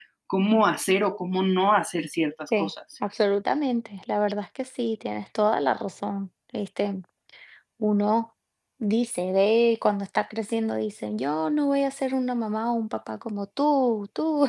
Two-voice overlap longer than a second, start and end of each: none

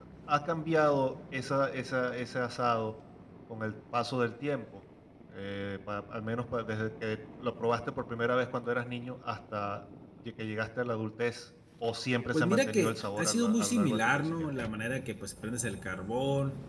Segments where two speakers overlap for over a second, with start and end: 12.3-14.5

